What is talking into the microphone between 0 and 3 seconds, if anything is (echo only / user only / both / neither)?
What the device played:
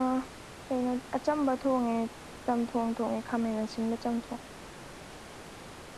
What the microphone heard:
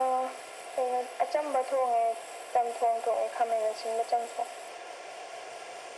echo only